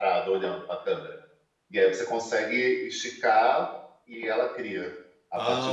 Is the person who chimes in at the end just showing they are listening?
No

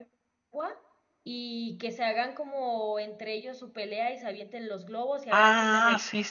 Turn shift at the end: Yes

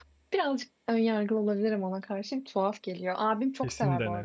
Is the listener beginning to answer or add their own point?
No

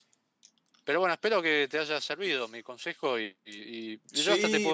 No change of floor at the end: No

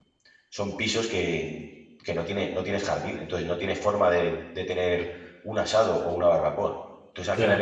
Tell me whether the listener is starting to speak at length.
No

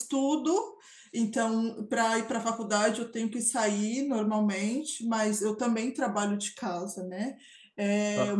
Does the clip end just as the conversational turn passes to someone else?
No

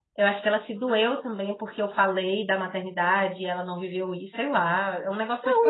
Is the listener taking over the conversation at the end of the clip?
Yes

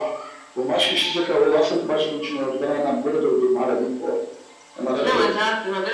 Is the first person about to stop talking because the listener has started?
Yes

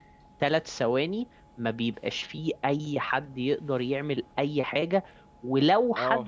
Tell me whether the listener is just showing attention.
Yes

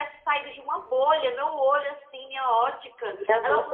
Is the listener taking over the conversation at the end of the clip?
No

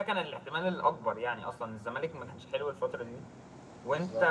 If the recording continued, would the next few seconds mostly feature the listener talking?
No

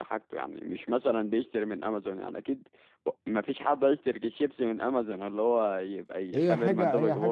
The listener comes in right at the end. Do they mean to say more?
Yes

